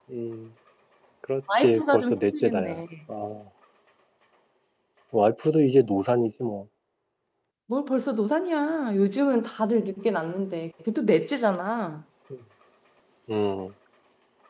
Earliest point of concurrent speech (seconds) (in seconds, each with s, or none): 1.6 s